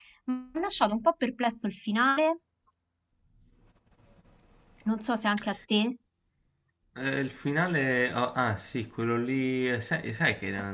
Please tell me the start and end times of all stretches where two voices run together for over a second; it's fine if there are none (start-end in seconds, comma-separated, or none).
none